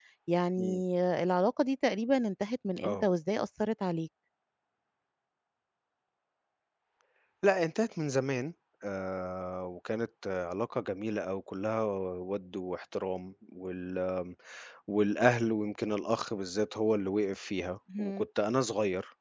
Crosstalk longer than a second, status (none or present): none